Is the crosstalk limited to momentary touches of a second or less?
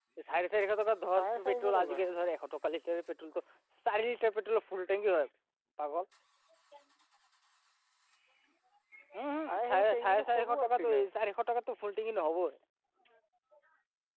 No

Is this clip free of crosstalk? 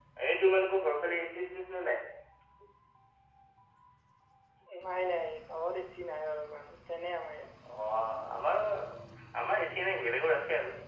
Yes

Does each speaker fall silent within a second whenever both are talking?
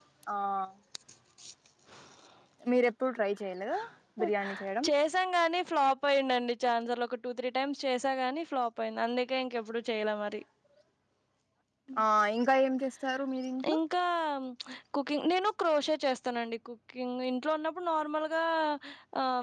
Yes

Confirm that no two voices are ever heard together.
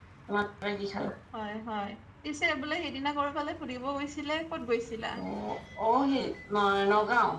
Yes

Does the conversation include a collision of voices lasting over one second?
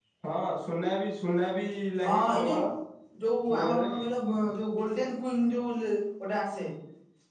No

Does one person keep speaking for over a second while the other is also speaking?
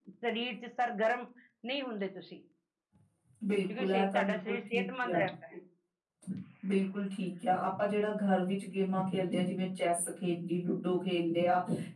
Yes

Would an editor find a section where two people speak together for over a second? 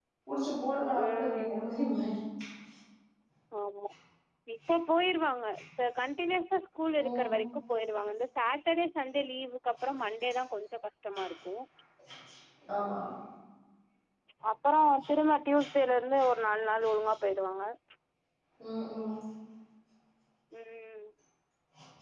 No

